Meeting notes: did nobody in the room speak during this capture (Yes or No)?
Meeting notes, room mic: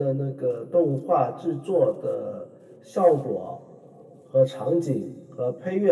Yes